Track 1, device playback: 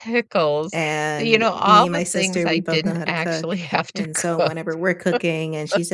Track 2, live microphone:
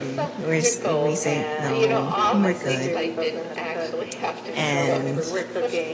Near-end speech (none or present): present